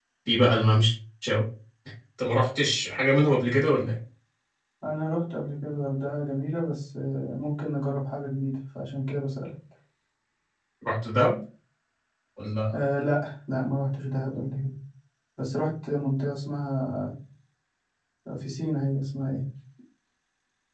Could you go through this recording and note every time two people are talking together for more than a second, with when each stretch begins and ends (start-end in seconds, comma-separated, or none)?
none